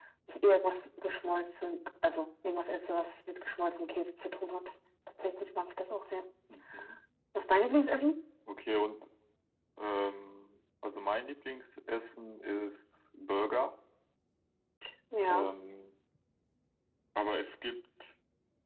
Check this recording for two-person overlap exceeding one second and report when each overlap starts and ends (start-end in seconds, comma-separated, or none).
none